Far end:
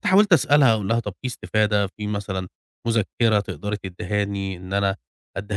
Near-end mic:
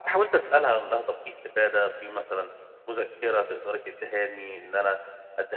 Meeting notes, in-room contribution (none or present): none